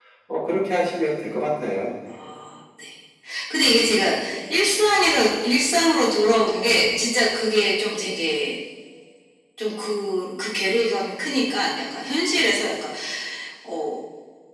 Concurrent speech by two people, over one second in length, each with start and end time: none

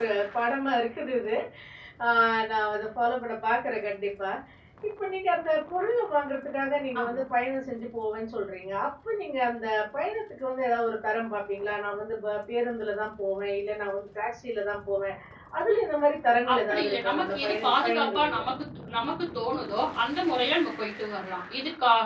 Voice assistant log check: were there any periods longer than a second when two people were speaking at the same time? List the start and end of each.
16.5-18.4

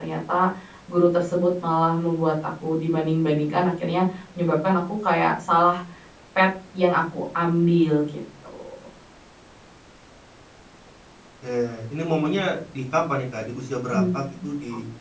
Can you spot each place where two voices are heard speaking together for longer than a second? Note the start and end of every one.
none

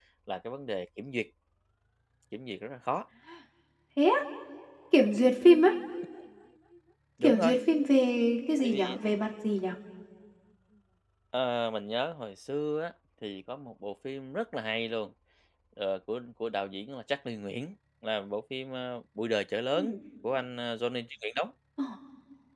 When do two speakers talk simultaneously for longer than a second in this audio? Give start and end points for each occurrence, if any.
none

